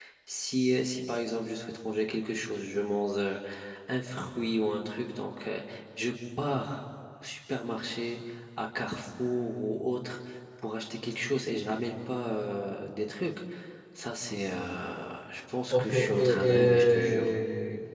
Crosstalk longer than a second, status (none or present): present